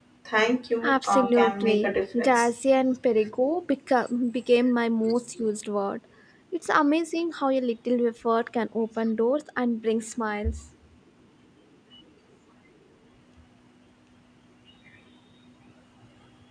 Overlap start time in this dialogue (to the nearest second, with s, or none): 1 s